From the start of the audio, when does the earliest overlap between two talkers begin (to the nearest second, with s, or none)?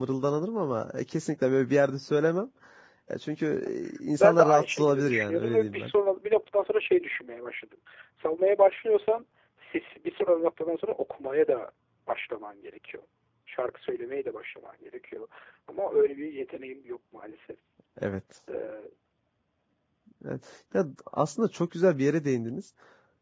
4 s